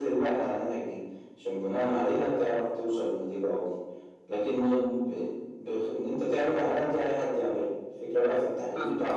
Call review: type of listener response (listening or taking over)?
listening